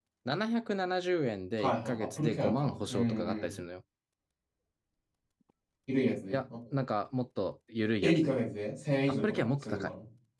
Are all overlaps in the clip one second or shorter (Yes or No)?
No